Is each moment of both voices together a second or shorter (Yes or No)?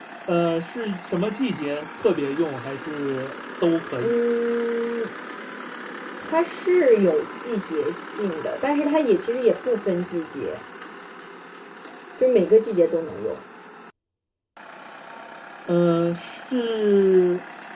Yes